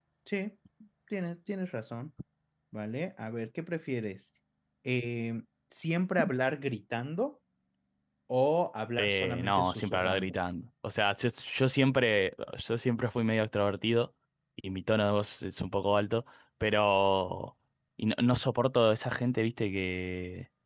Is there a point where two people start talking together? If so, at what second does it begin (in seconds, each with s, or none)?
9.0 s